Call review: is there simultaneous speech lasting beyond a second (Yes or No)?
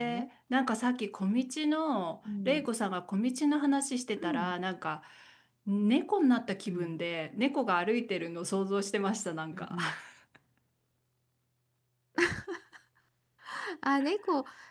No